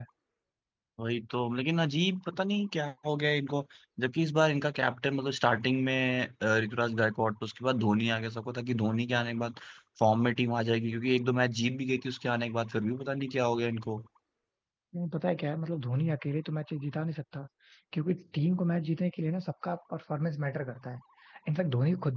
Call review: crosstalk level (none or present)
none